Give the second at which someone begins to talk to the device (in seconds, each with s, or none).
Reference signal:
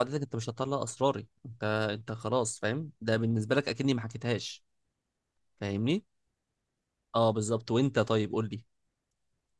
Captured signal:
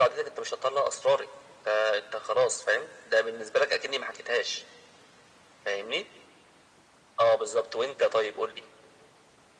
none